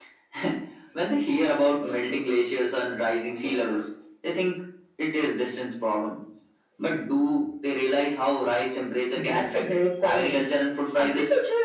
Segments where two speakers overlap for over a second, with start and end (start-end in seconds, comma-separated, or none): 9.2-10.4